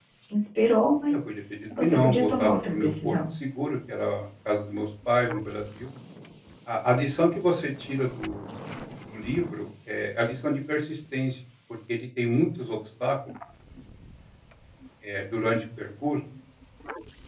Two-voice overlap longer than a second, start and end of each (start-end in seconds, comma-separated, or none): 1.8-3.1